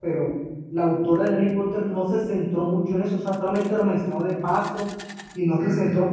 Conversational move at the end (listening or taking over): listening